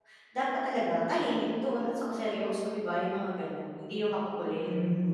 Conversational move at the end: taking over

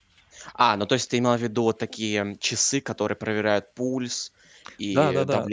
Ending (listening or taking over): taking over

